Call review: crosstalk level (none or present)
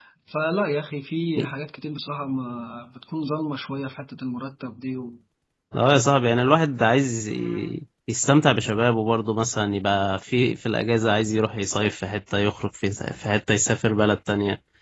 none